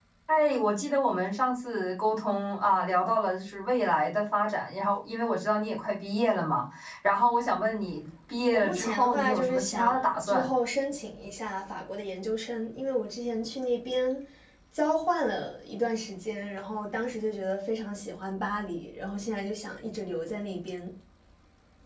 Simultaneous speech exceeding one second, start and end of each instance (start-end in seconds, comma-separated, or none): 8.5-10.5